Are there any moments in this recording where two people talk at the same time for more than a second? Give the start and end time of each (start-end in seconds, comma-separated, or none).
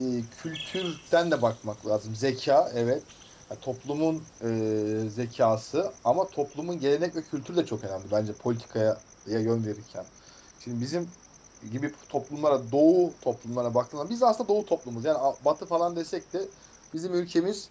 none